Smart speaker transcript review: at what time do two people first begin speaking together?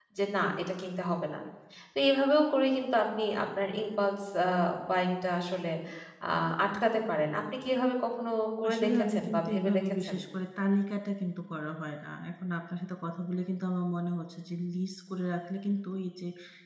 9 s

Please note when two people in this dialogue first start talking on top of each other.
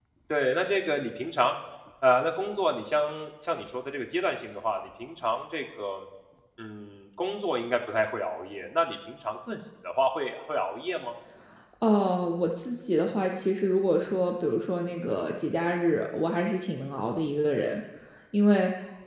none

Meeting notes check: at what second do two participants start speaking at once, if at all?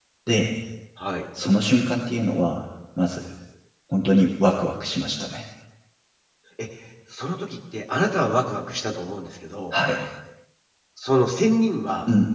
none

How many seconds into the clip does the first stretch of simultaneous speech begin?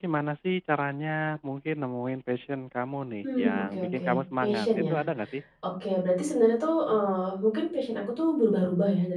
3 s

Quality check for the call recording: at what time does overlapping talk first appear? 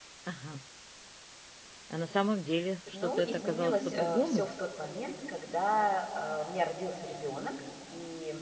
3 s

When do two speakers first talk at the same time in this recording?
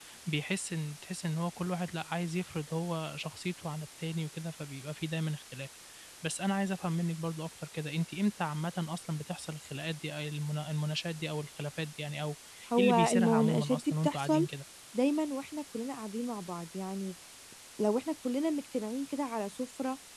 13 s

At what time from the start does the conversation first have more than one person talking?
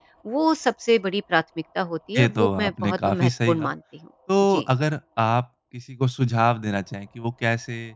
2 s

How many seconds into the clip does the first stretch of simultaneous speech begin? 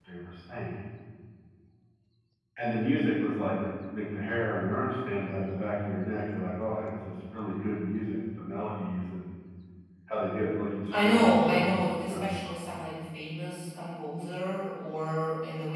11 s

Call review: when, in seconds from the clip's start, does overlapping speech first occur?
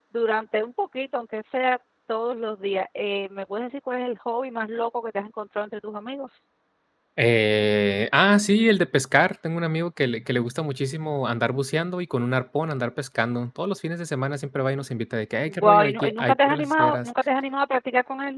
15 s

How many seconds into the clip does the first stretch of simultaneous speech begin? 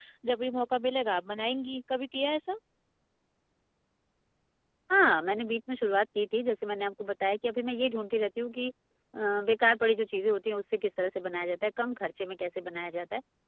none

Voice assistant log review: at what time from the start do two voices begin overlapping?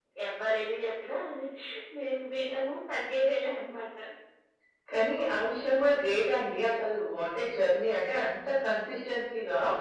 none

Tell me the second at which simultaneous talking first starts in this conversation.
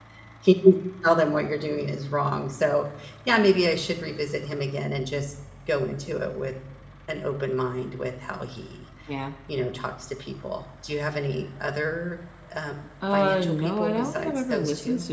13 s

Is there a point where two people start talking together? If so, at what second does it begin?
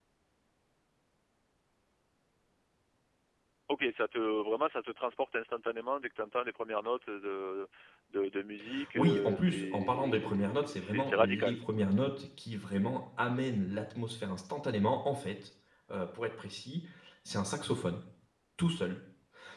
9 s

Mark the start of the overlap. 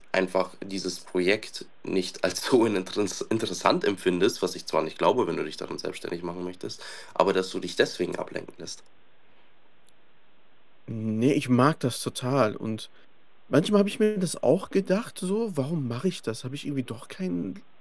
none

